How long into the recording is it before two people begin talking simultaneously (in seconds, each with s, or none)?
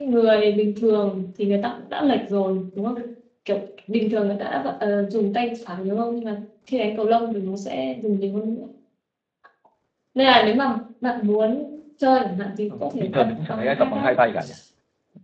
12.7 s